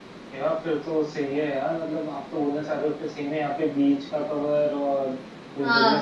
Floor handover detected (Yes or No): No